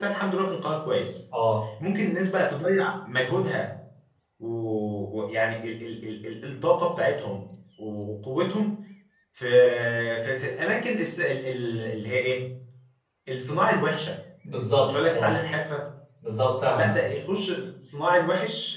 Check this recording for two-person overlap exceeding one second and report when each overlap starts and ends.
none

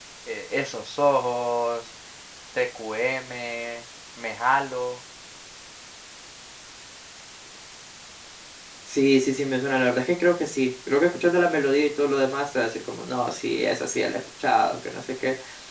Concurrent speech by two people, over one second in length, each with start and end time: none

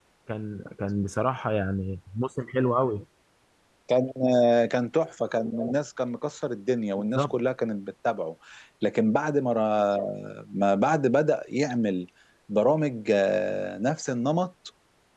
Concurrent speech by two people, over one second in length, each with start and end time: none

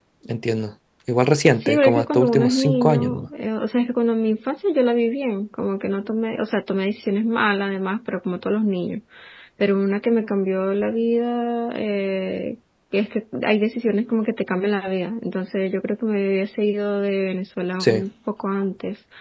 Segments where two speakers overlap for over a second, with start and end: 1.5-3.2

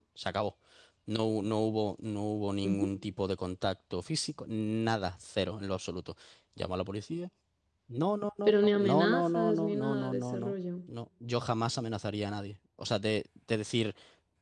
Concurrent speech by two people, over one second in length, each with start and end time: 8.5-10.5

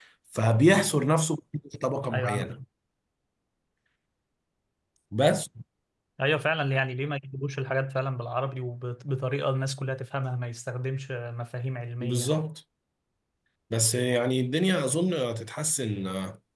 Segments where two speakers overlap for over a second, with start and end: none

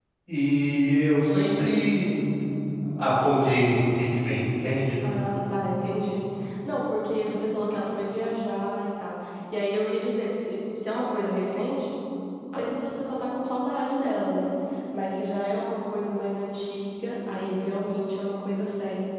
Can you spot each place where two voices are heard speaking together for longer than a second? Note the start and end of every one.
none

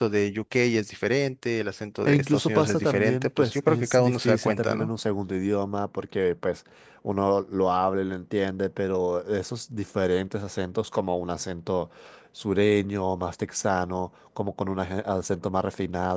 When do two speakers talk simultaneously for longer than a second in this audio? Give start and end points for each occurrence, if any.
2.1-4.9

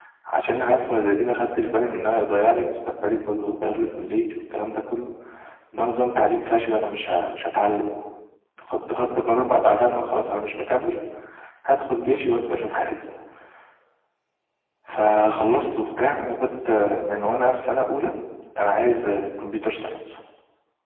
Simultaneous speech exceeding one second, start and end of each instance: none

